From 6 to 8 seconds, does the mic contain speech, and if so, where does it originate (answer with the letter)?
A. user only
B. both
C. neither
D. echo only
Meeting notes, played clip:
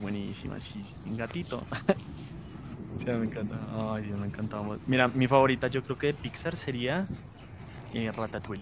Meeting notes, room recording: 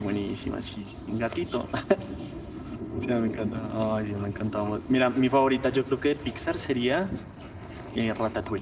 D